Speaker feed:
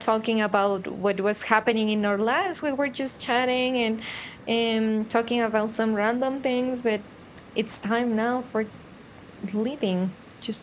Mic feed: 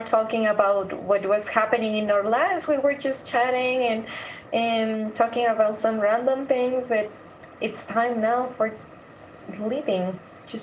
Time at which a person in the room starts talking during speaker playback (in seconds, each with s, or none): none